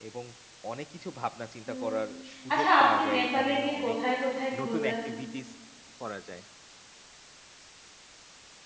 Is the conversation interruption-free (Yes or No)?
No